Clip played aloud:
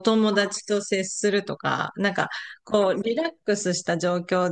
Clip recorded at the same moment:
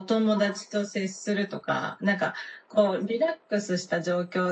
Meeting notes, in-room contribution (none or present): none